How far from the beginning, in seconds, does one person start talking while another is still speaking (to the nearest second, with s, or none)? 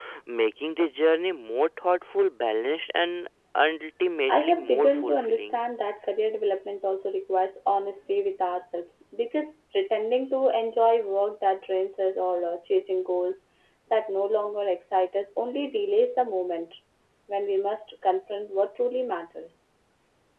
4 s